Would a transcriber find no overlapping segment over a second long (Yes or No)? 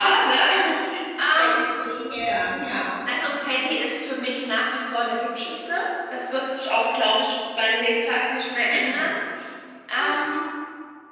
Yes